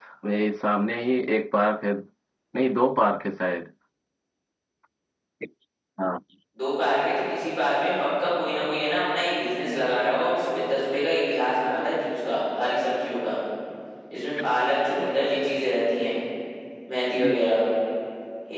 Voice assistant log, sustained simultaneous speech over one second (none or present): none